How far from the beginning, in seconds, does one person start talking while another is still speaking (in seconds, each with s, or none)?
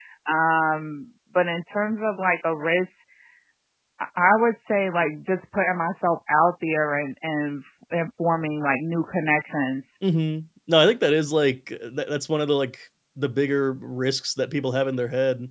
none